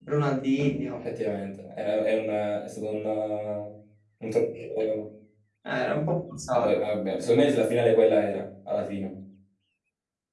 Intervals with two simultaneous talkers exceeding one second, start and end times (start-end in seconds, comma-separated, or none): none